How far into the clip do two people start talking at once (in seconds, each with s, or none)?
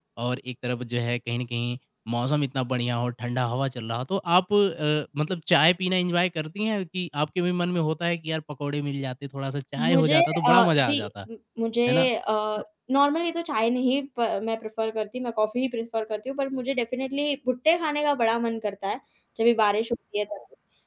9.8 s